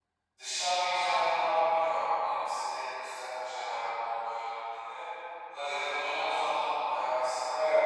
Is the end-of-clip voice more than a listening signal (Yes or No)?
No